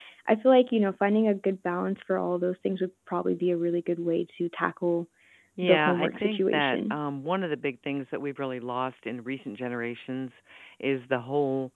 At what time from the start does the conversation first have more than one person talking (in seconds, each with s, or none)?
5.6 s